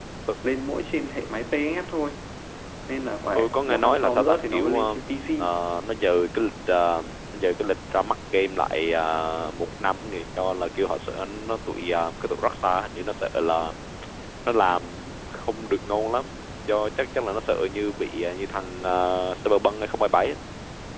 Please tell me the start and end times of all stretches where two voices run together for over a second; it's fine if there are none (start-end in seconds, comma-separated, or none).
3.3-5.0